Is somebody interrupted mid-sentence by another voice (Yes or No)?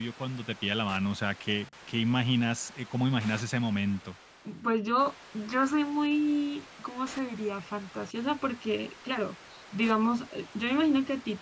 No